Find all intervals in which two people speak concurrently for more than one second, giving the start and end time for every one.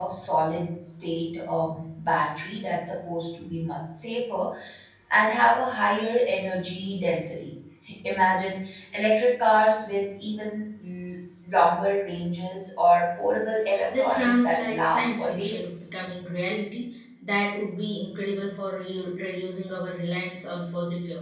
13.9-15.8

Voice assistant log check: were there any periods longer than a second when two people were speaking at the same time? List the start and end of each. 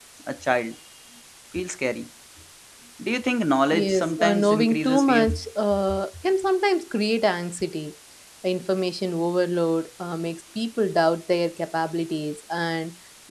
3.7-5.3

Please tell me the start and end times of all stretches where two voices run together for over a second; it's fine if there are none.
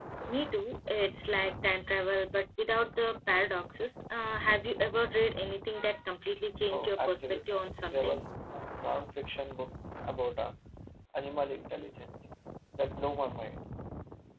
6.7-8.2

